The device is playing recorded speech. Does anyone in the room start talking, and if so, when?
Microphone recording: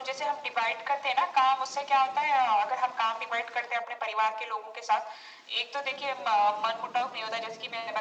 none

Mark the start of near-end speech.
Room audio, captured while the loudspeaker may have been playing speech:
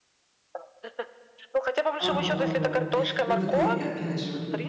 2.0 s

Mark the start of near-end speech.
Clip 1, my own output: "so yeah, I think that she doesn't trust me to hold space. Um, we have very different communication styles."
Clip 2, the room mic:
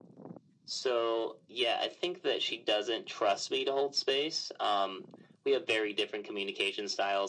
none

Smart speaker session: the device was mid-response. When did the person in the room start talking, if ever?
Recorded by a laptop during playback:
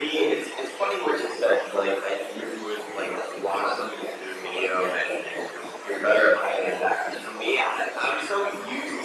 none

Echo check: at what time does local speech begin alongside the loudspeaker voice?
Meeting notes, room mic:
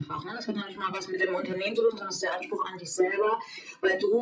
none

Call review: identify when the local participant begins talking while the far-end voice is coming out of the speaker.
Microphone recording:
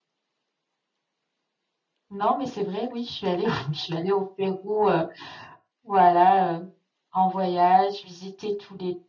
none

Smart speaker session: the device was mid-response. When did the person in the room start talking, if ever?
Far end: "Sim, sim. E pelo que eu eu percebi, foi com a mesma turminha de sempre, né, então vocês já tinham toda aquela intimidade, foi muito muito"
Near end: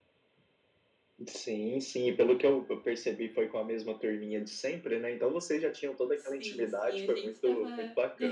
6.2 s

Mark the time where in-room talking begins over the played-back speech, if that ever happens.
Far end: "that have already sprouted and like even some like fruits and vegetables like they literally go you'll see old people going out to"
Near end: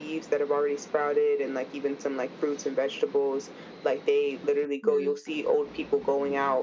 4.8 s

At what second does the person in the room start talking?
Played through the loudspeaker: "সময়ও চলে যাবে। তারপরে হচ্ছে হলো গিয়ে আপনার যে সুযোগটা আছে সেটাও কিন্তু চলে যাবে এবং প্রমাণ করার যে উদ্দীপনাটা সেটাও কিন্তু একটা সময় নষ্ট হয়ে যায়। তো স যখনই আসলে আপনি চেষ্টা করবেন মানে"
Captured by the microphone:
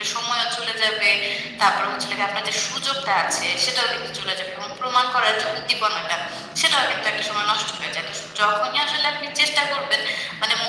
none

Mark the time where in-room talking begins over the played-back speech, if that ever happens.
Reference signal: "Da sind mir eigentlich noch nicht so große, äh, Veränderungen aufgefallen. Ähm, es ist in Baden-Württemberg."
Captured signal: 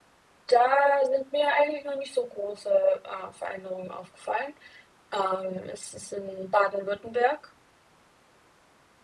none

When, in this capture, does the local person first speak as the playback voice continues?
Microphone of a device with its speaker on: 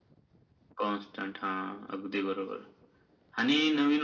none

